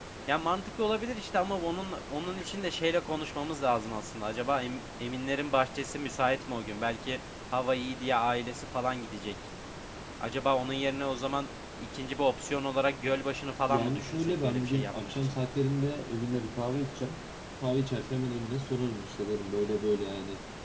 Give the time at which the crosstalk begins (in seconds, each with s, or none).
13.7 s